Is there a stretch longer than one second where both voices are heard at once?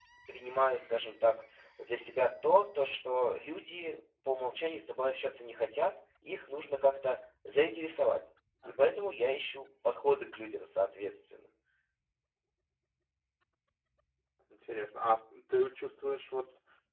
No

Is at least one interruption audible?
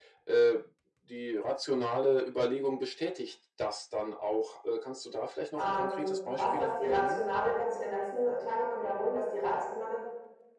Yes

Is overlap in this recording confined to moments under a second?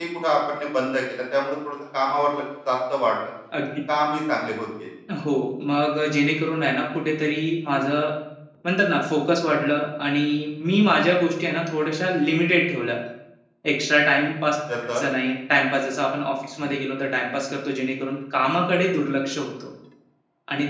Yes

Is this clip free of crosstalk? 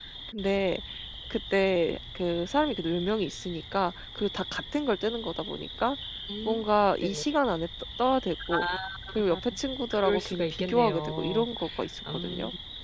No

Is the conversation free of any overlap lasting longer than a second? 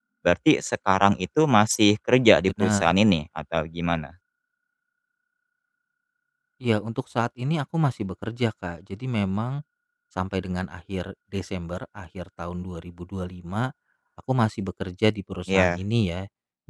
Yes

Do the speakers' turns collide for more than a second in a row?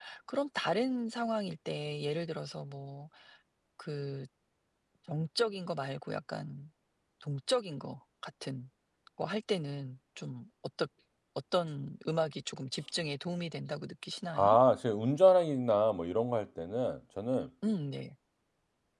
No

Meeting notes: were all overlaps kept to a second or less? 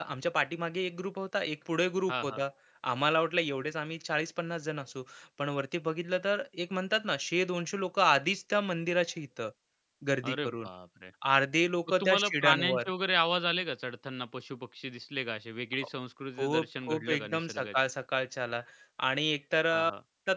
No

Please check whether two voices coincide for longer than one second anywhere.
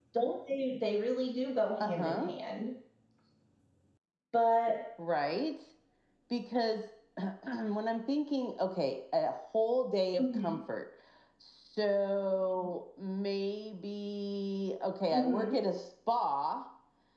No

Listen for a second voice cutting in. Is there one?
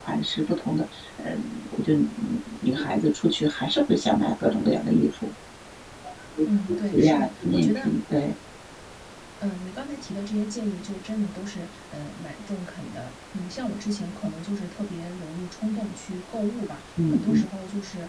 Yes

